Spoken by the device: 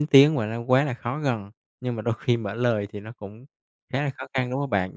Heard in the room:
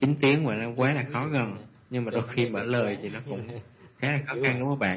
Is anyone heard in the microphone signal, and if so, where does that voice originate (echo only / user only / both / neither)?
both